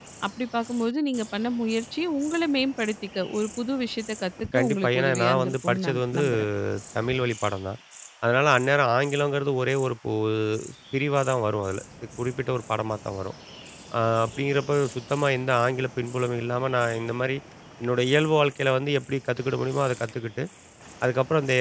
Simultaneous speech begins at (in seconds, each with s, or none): 4.5 s